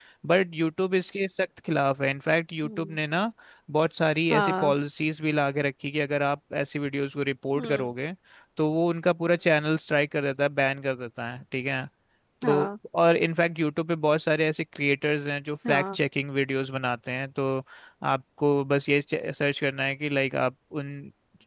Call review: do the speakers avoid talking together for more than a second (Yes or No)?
Yes